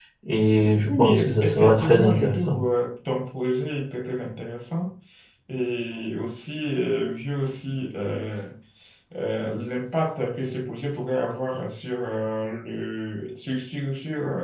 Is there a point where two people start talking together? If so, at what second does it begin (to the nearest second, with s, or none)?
1 s